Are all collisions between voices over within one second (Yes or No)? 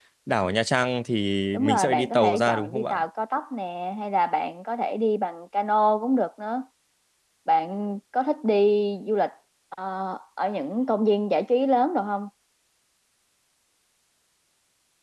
No